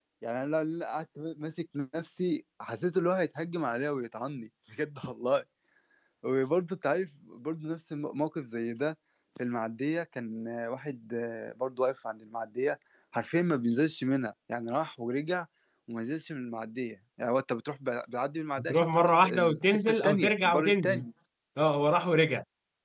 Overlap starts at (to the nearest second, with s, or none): 19 s